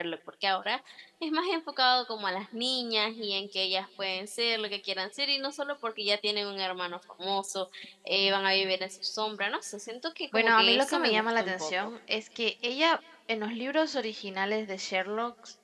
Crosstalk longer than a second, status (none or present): present